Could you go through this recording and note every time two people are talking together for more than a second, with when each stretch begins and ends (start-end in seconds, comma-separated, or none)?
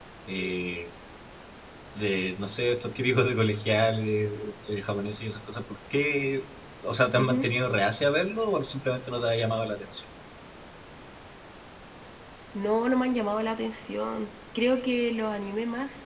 none